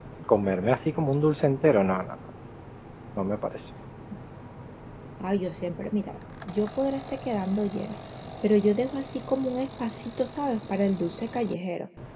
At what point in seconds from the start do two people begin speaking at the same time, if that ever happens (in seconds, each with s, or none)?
none